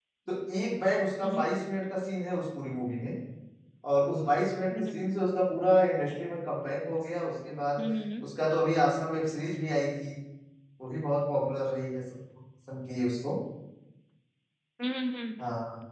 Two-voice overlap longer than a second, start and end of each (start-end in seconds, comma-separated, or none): none